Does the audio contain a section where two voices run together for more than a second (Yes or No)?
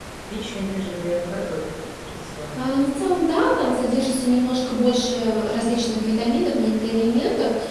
No